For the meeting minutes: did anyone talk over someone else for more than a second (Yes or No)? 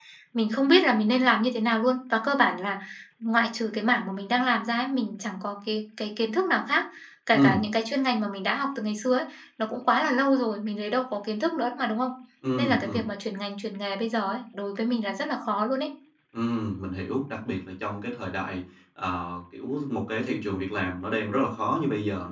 No